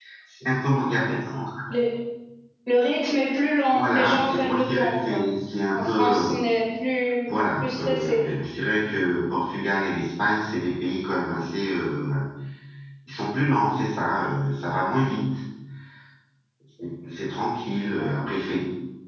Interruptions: present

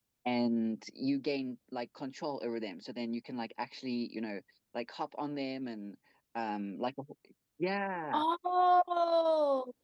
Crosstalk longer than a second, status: none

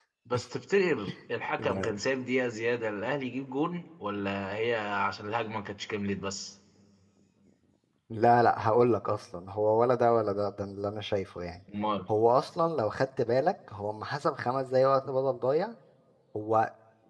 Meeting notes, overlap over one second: none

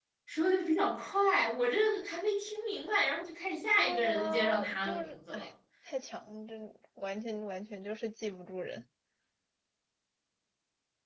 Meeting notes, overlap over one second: present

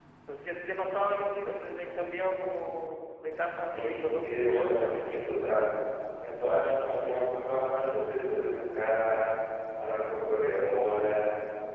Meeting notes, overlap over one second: present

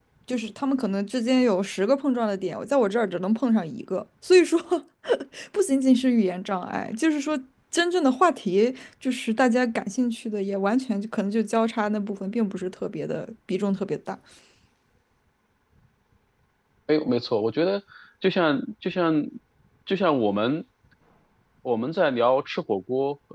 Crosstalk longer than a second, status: none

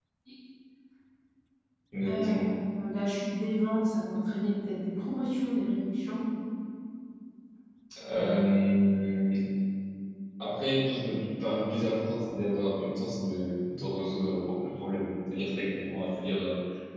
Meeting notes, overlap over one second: none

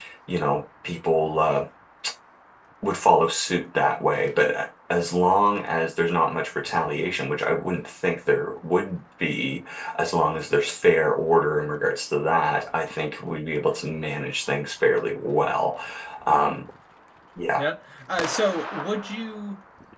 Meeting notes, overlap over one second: none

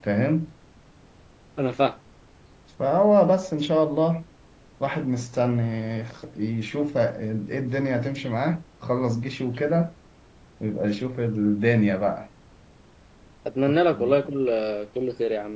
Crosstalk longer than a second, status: none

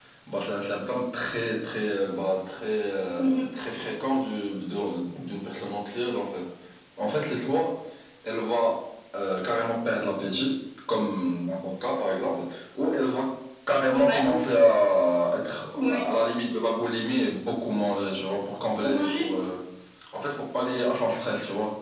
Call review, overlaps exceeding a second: none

